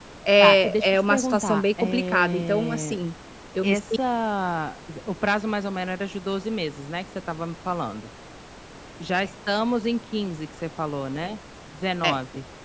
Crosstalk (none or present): present